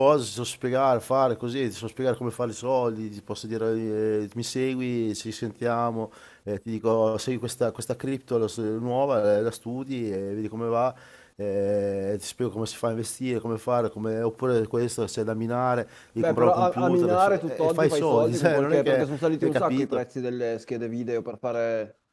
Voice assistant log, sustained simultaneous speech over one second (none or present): present